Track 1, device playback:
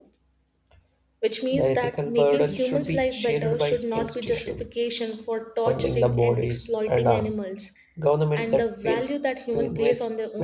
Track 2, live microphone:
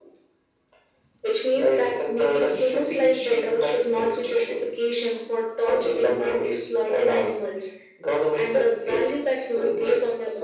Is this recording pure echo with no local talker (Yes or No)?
Yes